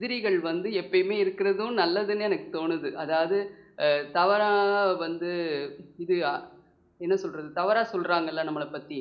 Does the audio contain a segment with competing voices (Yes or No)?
No